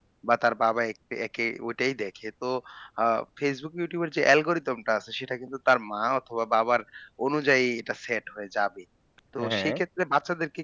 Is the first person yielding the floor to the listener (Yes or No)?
No